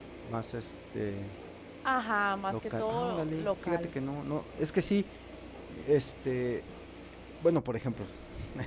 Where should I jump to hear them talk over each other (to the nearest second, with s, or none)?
2 s